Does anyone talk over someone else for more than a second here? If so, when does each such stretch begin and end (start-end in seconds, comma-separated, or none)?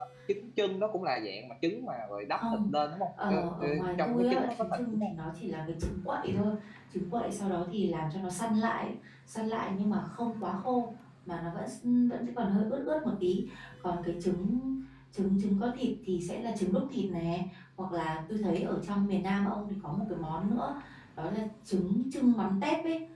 3.3-5.1